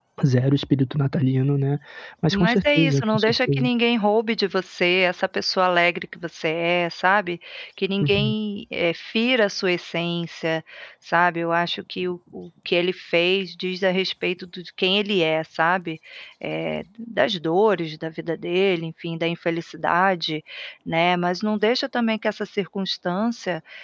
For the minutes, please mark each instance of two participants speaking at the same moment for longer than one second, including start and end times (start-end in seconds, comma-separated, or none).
2.3-3.6